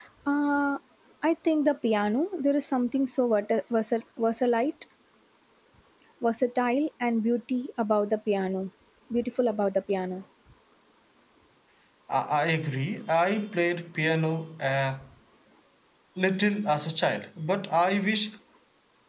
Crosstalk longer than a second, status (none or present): none